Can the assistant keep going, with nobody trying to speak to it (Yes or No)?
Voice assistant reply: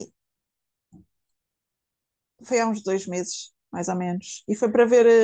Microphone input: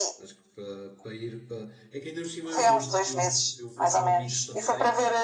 No